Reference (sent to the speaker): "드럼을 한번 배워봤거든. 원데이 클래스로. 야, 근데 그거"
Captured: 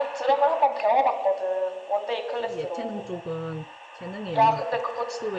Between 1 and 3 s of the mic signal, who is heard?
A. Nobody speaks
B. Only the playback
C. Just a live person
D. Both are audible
D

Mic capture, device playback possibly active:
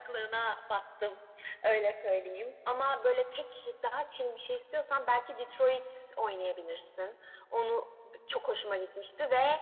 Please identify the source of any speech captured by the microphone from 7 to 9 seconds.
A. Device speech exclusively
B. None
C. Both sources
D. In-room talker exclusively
A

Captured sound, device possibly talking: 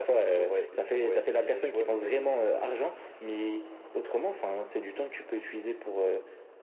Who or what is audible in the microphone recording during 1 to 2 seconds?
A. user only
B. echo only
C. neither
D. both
B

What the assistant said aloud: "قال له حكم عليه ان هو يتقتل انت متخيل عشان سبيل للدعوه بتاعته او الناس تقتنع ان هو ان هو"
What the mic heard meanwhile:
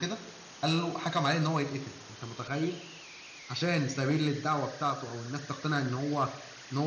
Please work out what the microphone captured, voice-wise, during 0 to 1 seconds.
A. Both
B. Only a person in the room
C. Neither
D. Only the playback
D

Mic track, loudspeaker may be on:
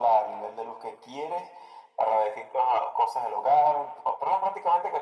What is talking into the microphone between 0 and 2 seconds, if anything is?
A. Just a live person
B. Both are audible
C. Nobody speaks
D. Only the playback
D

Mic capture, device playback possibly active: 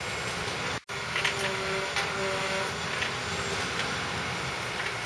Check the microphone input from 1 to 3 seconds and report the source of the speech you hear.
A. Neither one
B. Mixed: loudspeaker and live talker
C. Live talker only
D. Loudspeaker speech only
A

